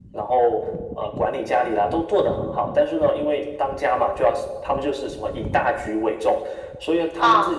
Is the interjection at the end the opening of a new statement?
No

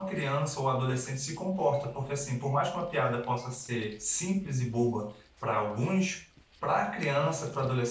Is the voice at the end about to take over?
No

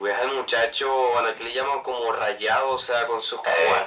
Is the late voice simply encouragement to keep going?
Yes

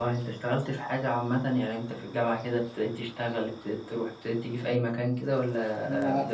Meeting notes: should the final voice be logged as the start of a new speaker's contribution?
Yes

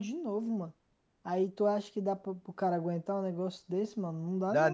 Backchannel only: No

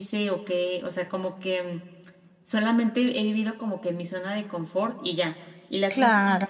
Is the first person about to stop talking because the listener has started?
No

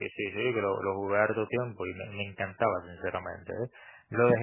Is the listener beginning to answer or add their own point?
No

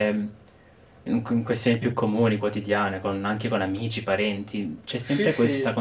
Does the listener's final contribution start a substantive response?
No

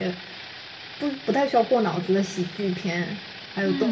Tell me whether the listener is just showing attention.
No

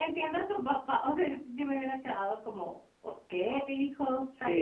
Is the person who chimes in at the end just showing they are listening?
No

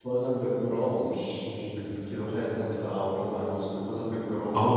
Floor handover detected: Yes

